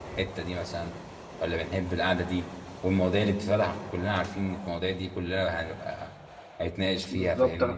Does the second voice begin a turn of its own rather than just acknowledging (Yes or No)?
Yes